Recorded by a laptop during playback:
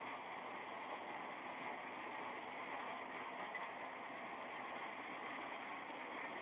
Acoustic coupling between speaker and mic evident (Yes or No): No